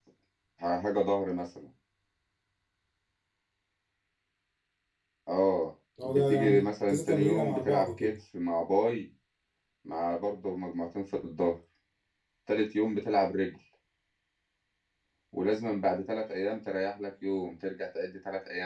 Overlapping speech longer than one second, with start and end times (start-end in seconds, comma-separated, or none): 6.0-8.1